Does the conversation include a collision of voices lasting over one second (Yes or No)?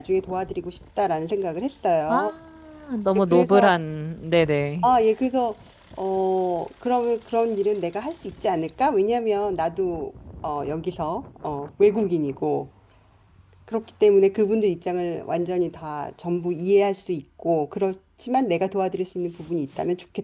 No